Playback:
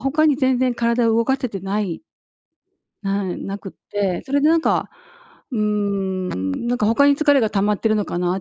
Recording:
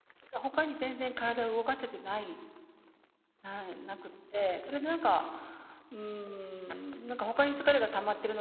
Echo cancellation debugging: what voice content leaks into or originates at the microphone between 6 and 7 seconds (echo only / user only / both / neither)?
echo only